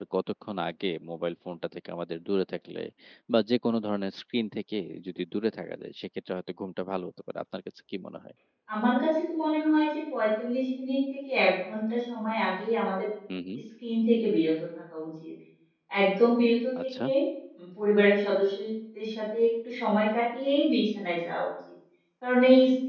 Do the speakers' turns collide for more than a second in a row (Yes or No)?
No